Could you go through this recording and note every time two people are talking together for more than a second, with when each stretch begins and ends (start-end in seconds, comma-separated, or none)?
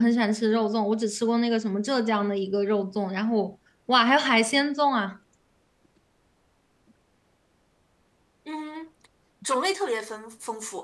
none